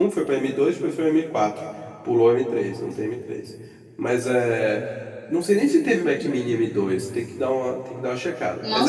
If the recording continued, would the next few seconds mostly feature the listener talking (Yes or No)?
Yes